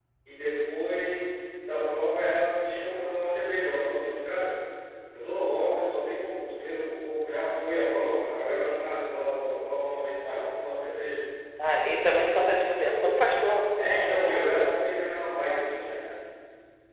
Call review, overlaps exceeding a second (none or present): none